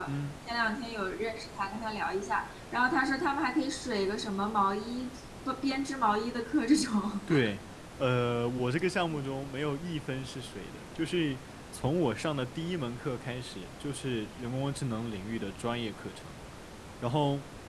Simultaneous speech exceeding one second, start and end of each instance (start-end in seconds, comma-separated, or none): none